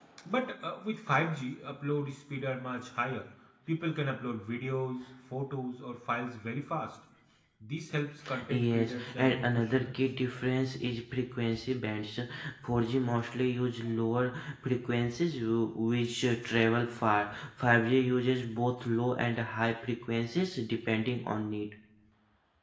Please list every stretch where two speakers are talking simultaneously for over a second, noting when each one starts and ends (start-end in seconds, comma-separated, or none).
8.5-9.9